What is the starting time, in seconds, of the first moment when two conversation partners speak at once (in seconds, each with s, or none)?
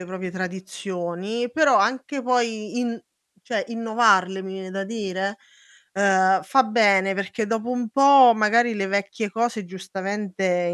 none